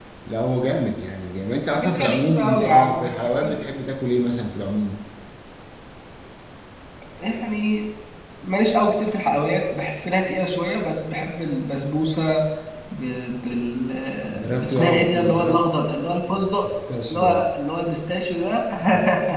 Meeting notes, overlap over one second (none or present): present